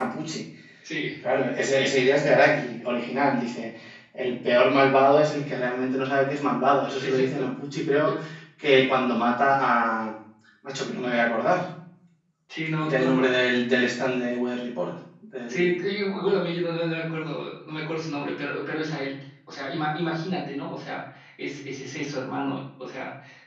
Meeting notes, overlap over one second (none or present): none